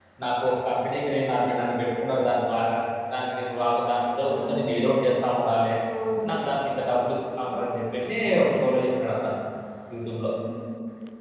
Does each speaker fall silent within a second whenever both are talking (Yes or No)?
Yes